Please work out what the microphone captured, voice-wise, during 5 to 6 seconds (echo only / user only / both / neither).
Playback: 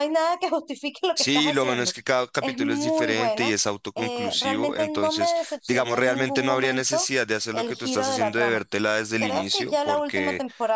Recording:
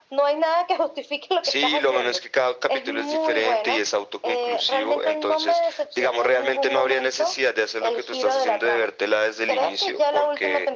echo only